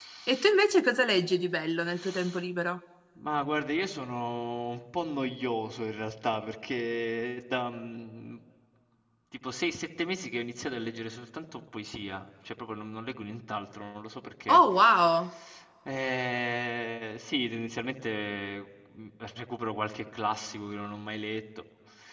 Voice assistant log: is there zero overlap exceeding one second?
Yes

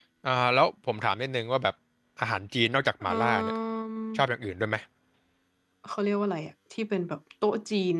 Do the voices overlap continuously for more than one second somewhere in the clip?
No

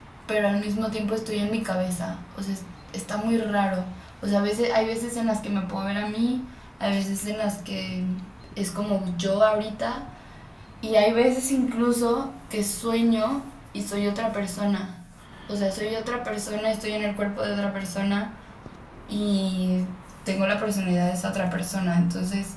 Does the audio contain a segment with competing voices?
No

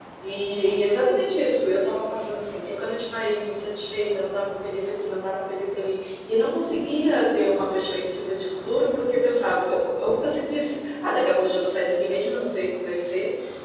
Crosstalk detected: No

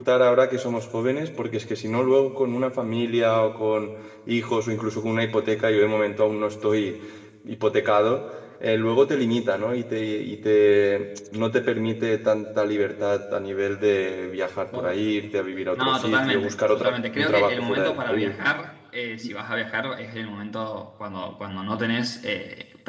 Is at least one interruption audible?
Yes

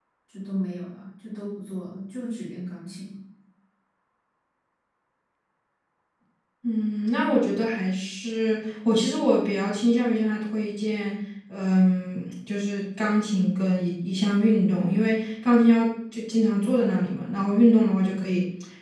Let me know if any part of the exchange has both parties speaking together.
No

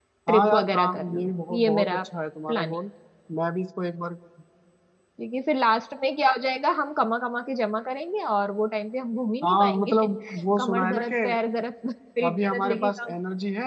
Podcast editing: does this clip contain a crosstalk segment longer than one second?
Yes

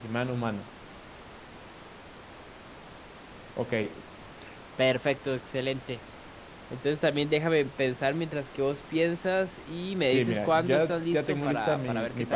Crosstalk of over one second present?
Yes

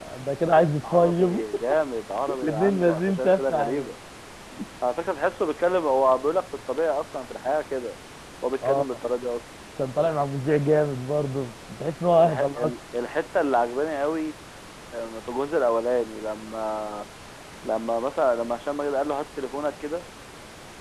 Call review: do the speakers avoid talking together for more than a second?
No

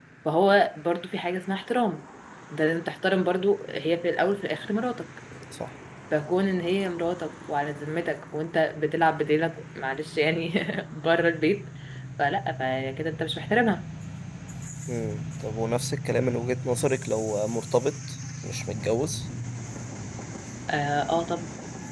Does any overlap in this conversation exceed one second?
No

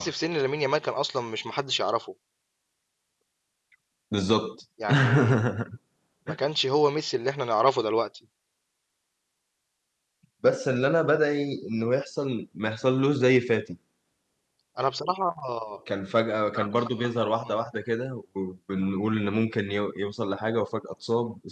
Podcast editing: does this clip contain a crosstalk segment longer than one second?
No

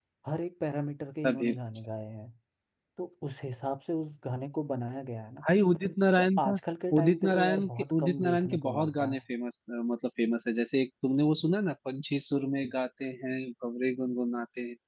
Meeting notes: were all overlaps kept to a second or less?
No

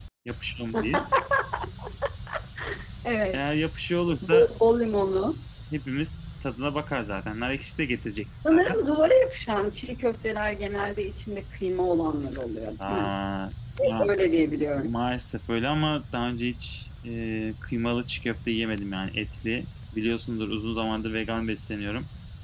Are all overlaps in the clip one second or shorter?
Yes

